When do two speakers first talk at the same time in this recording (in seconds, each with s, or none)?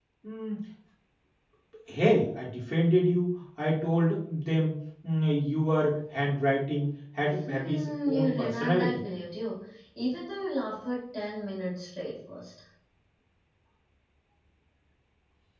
7.4 s